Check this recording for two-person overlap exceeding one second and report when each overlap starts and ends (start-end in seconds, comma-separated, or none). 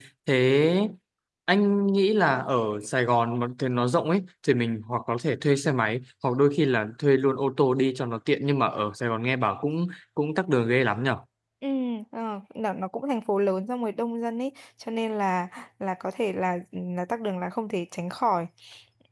none